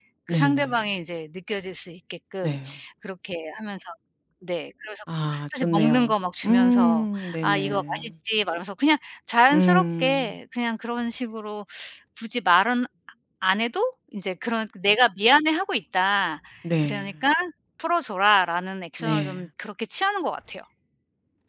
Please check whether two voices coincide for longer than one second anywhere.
Yes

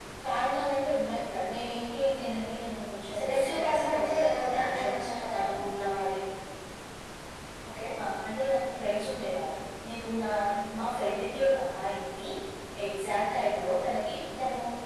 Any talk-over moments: Yes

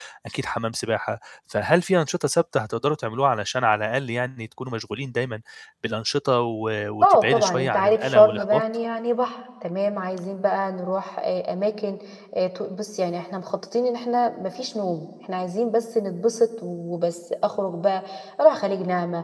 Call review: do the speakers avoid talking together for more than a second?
No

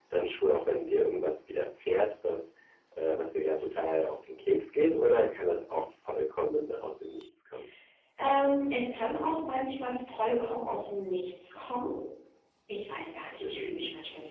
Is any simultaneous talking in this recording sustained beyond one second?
No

